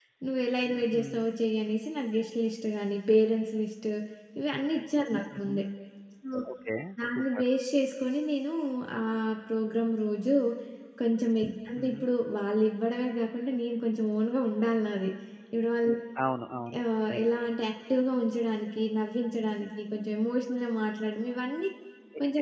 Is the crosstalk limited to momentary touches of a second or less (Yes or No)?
Yes